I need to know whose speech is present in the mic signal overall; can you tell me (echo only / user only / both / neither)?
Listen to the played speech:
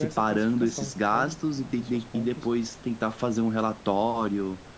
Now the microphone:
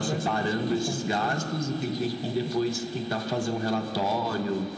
echo only